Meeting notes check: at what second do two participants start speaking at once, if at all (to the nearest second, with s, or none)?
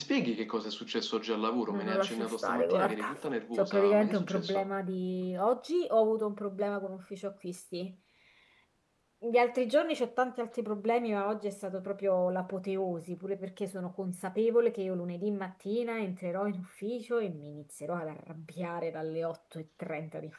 2 s